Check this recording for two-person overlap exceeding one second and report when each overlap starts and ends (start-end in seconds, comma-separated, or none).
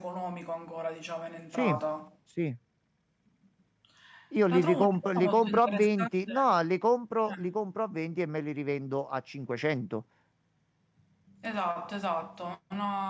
4.5-6.3